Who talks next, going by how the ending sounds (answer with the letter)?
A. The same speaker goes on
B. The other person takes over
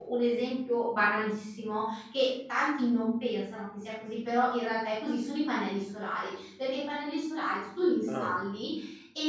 A